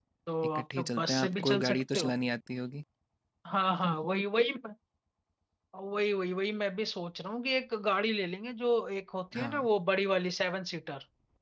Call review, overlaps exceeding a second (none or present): present